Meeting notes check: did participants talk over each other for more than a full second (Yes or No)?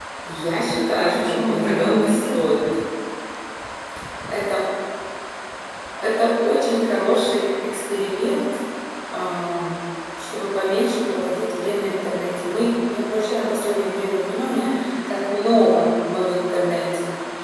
Yes